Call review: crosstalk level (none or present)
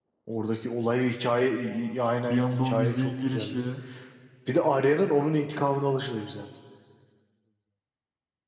present